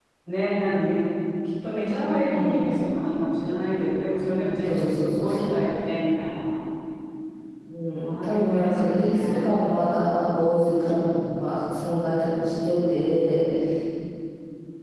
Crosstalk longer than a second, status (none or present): present